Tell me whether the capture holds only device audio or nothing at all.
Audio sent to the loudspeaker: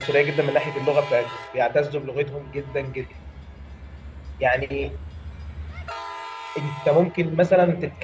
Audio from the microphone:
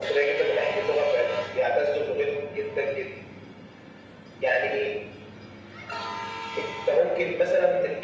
Yes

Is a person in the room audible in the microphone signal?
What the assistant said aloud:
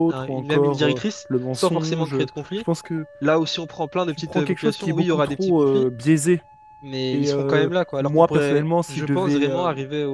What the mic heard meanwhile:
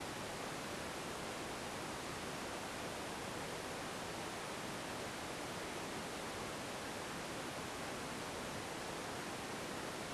No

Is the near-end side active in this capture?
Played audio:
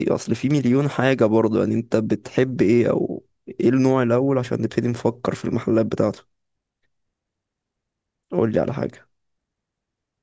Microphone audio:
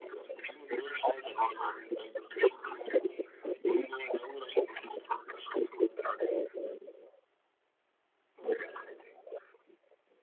No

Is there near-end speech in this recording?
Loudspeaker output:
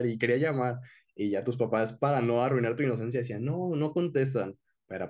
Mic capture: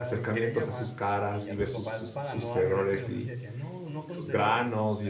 Yes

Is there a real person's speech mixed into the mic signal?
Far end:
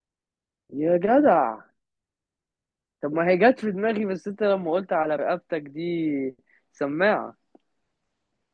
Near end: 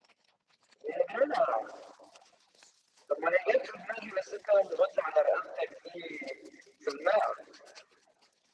No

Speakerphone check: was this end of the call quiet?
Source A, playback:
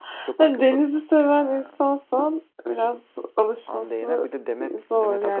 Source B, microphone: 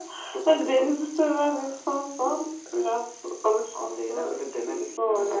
Yes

